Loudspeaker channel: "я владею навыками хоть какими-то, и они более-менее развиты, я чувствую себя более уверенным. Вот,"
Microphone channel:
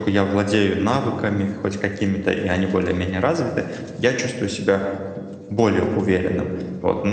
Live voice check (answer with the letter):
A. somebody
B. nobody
B